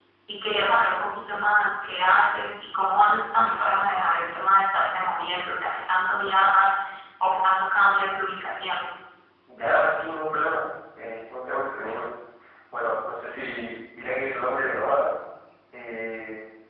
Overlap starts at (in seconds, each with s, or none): none